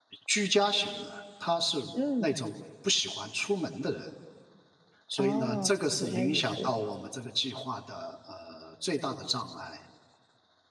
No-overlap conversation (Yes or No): No